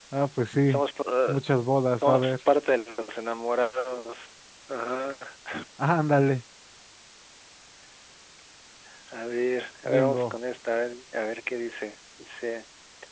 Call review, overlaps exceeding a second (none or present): none